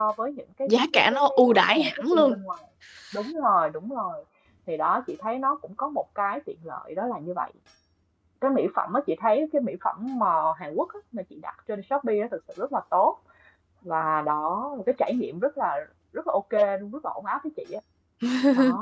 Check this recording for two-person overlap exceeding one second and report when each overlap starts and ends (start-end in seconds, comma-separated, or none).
0.7-2.4